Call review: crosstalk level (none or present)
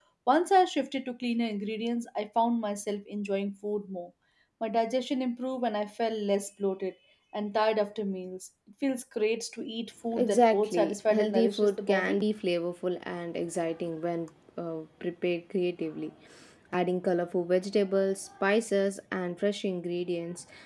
present